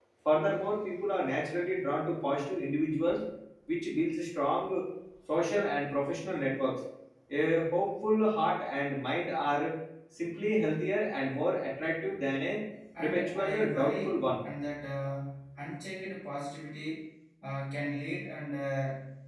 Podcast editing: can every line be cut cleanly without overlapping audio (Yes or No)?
No